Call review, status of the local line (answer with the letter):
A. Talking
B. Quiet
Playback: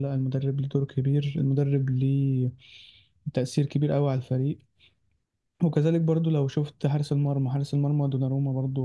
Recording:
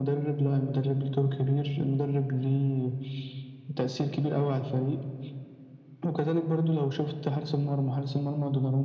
B